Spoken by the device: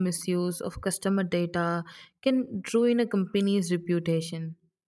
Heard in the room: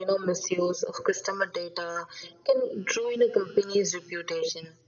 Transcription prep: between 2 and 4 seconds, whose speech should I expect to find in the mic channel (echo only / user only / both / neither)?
echo only